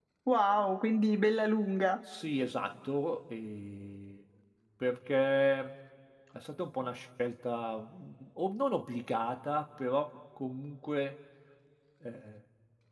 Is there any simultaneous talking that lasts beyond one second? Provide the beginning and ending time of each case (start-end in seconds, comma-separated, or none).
none